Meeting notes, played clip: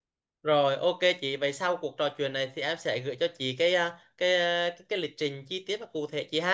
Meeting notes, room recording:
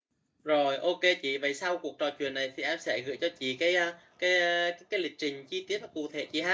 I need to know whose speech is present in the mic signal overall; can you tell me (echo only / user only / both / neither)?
echo only